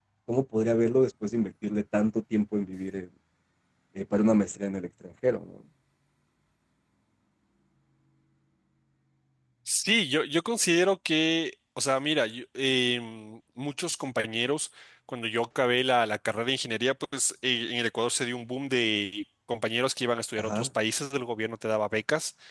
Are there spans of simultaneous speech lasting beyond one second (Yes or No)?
No